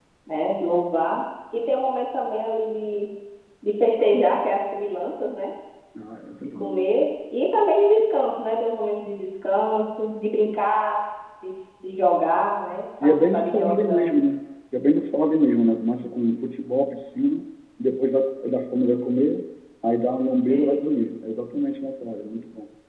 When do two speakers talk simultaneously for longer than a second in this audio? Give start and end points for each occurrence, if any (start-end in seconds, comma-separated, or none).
13.0-14.2